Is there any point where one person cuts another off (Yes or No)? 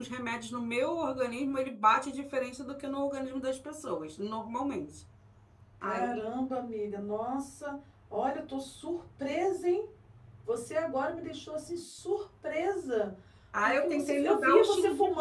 Yes